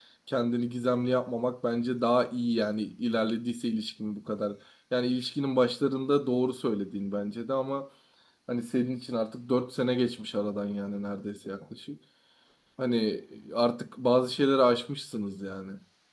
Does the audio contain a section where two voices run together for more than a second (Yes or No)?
No